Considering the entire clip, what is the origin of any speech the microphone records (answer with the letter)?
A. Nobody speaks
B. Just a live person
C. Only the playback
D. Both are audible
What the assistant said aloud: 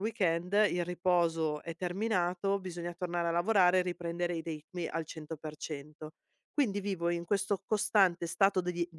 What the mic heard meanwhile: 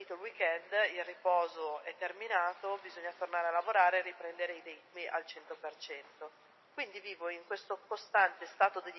C